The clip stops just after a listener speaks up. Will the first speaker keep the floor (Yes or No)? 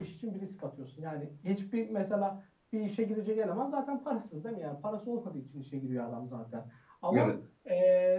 Yes